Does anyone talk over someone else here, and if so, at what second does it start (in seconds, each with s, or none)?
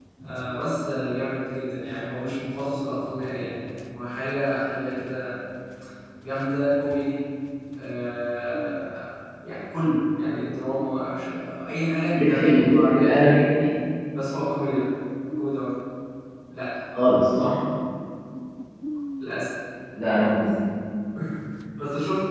12.2 s